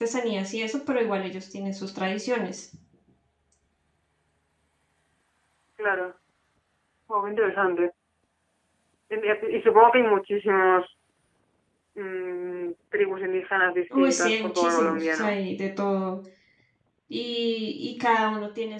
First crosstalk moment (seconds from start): 14 s

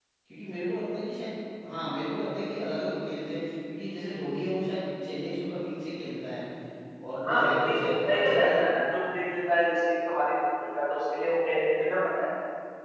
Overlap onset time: 7 s

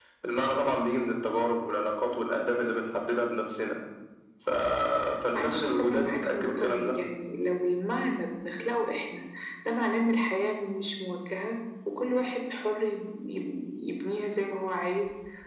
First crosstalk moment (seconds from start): 5 s

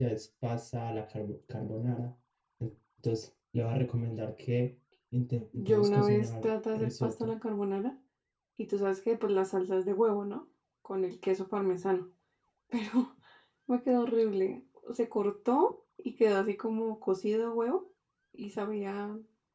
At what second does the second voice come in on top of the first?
6 s

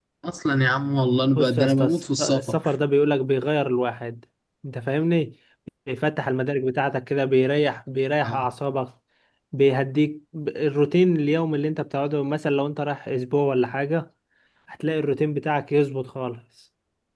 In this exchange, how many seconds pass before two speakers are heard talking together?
1 s

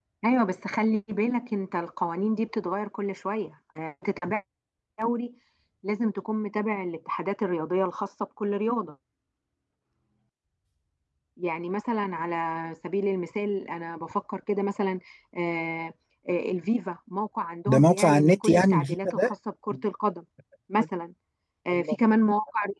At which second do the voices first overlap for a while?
18 s

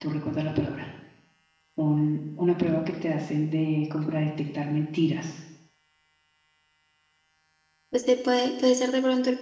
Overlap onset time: none

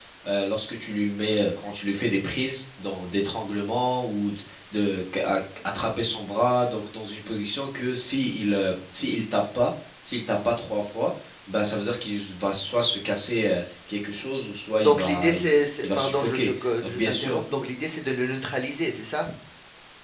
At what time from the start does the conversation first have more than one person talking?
15 s

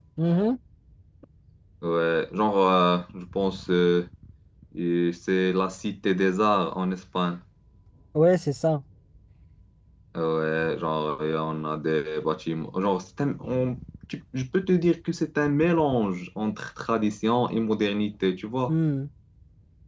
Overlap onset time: none

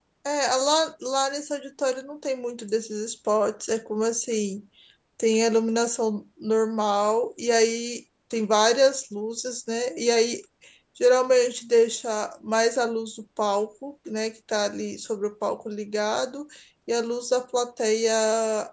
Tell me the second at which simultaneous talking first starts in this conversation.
none

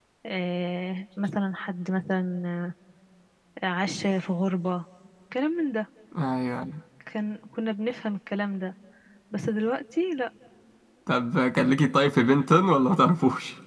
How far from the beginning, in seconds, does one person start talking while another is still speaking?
none

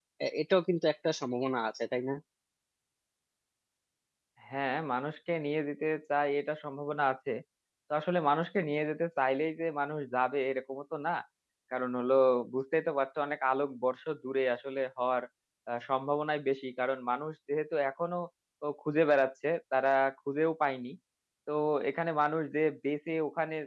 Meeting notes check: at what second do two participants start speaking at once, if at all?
none

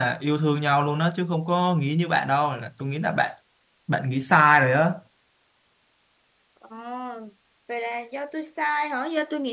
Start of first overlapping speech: none

